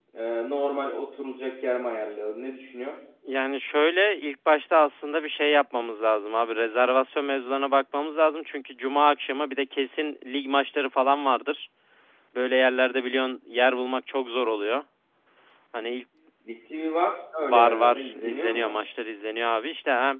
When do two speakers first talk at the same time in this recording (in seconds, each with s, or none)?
17.4 s